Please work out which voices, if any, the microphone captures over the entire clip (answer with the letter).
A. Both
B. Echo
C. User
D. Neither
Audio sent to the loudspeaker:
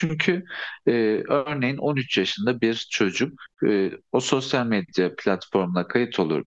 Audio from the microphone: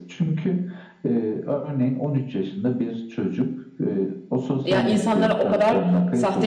A